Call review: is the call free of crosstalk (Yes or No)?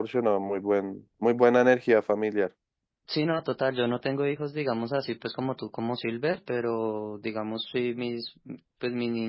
Yes